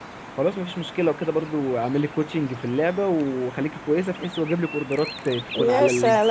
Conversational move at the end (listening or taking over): taking over